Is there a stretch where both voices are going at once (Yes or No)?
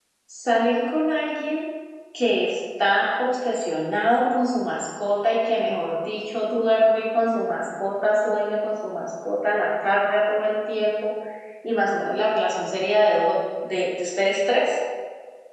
No